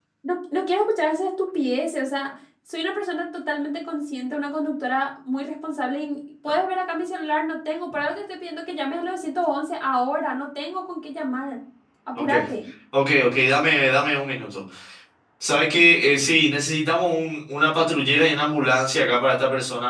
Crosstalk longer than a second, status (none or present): none